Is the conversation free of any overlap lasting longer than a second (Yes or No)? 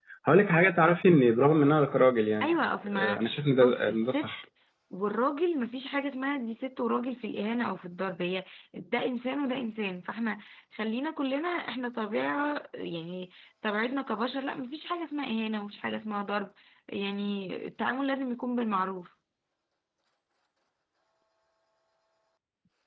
No